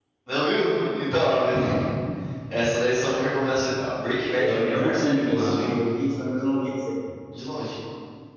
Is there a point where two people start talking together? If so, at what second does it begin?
4.4 s

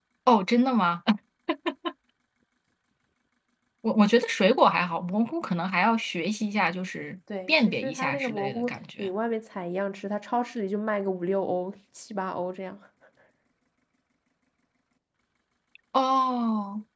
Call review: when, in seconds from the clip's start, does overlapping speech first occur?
7.3 s

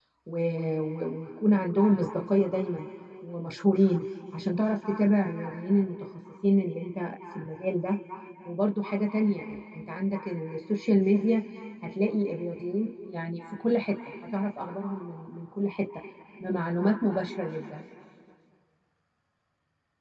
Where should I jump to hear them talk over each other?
none

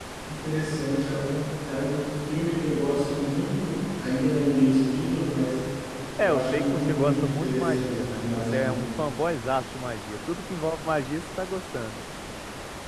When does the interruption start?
6.2 s

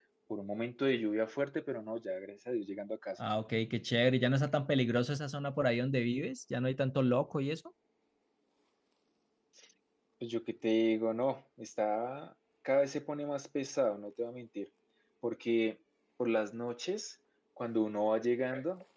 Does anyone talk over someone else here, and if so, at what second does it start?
none

